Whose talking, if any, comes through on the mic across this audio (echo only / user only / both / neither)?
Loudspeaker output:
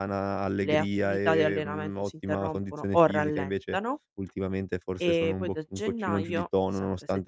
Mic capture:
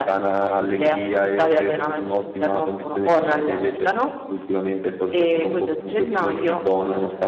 both